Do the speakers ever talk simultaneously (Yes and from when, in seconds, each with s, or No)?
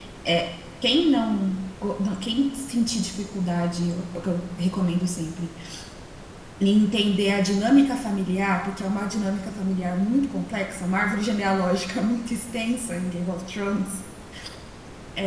No